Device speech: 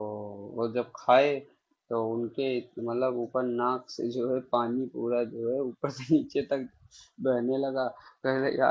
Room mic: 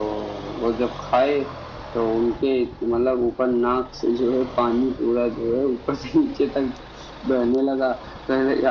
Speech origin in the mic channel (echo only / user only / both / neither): echo only